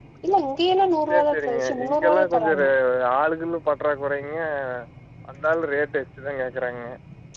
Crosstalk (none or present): present